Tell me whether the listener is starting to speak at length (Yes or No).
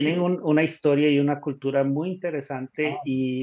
No